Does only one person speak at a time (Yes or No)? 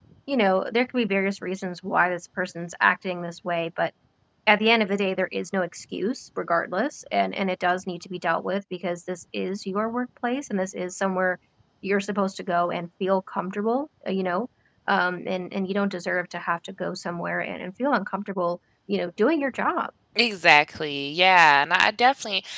Yes